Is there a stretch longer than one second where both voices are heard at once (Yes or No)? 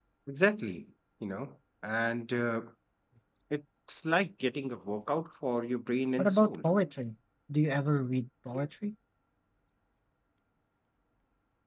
No